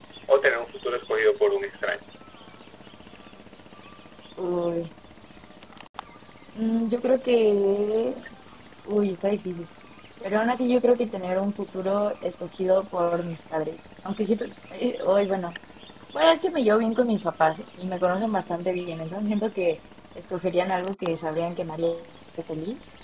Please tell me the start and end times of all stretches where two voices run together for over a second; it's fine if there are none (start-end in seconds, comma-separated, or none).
none